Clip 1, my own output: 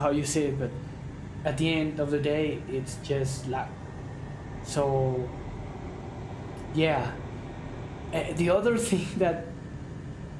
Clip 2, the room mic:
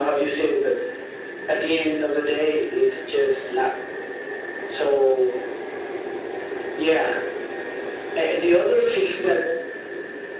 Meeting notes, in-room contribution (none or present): none